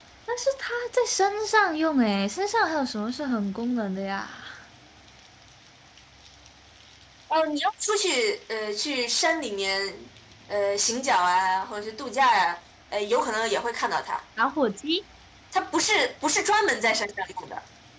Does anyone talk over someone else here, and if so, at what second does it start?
none

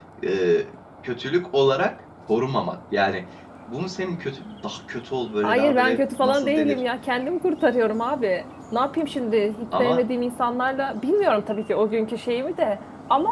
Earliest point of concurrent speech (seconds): 5.4 s

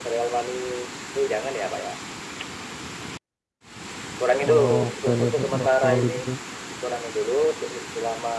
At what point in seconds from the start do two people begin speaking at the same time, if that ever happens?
4.5 s

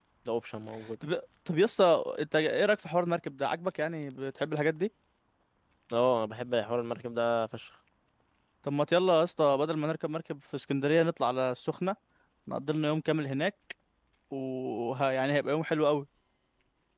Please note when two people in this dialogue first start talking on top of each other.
none

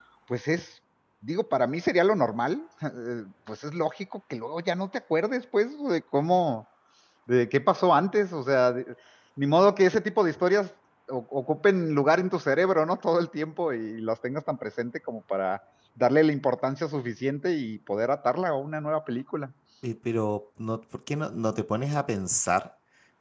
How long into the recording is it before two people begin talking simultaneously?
none

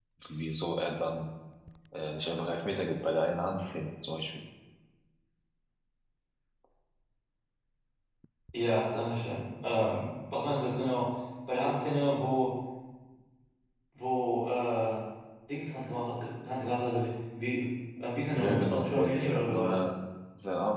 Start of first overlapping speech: 18.3 s

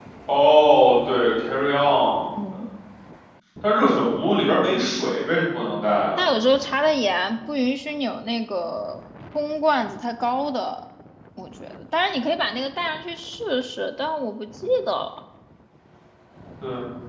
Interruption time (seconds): none

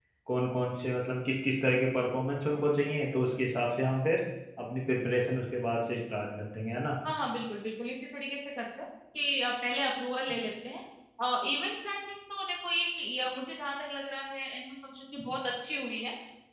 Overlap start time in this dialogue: none

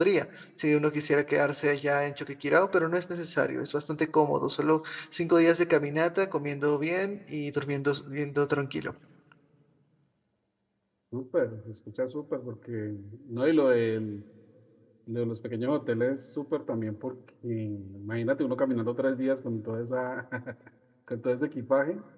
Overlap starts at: none

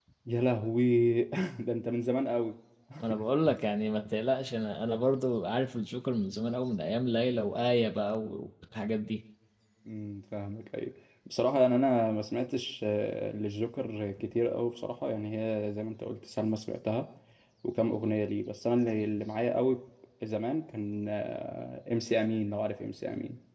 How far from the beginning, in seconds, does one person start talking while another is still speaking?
none

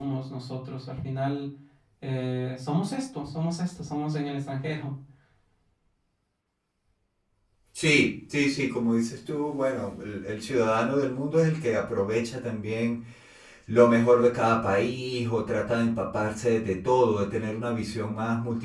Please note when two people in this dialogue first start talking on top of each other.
none

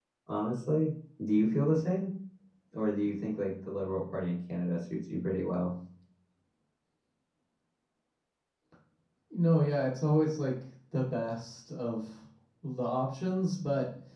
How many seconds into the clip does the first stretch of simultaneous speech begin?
none

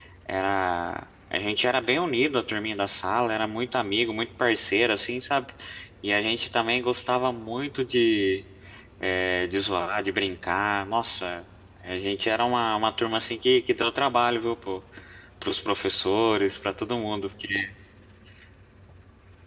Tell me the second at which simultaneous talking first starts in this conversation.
none

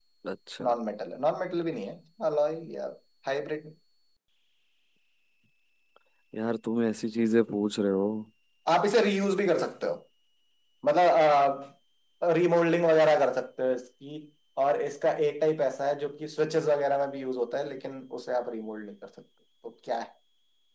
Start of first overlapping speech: none

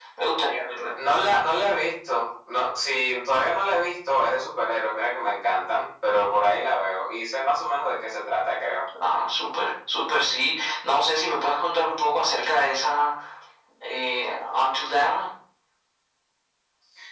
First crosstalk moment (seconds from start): none

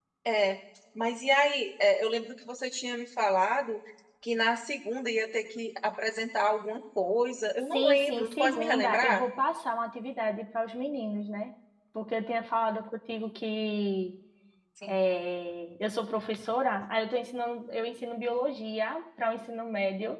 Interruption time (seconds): 7.7 s

